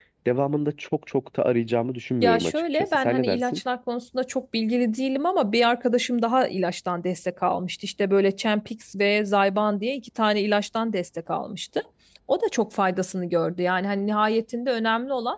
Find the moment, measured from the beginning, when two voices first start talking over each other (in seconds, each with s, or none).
2.2 s